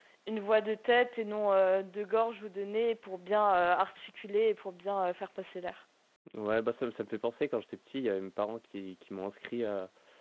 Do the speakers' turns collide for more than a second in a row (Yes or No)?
No